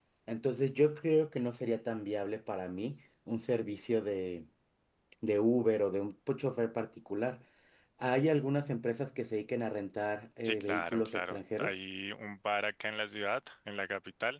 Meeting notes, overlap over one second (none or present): present